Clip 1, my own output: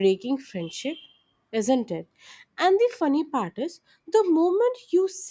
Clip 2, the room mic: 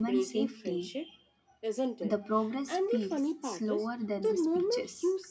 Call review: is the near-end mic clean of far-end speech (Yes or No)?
No